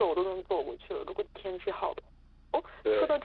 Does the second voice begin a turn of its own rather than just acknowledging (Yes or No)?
No